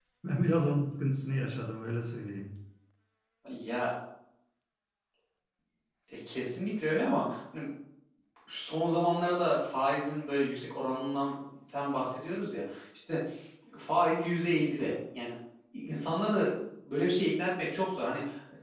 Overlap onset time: none

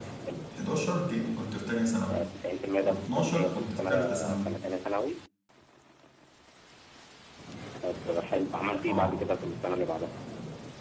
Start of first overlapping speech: 3 s

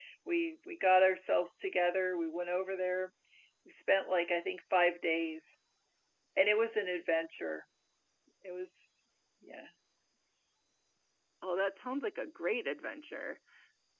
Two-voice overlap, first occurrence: none

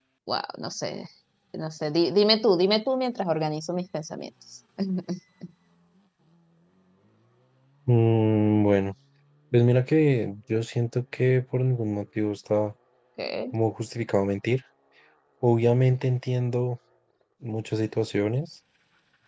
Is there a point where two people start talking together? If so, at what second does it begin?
none

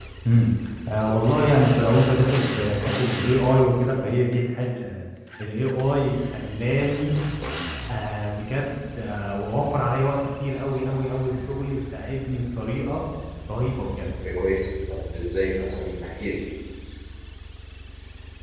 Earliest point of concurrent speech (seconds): none

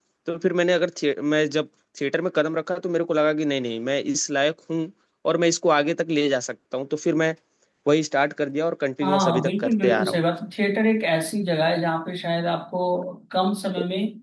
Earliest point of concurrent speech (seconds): 9 s

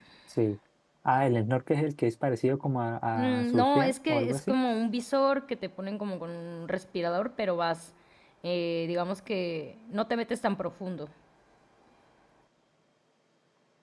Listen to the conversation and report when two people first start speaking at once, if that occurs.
3 s

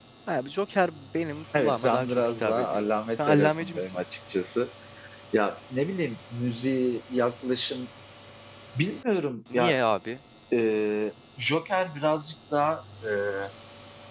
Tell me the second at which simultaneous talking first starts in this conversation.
2 s

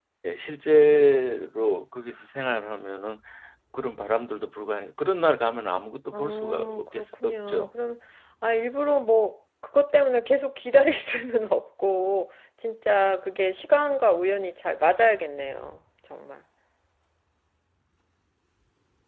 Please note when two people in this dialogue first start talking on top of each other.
6 s

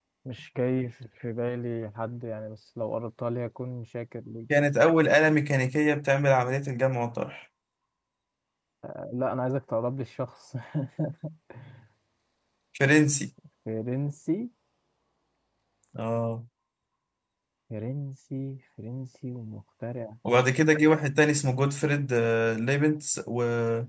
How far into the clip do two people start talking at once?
none

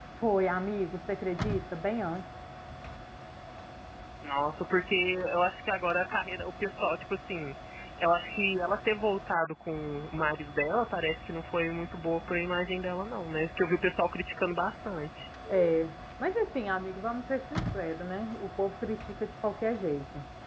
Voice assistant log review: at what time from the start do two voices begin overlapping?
none

